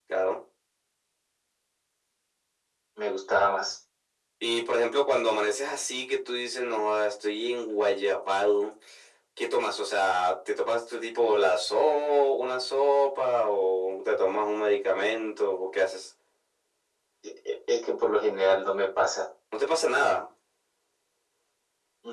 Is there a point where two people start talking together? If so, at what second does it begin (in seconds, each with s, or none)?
none